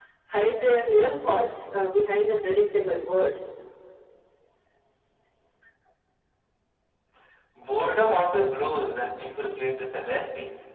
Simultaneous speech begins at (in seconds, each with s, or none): none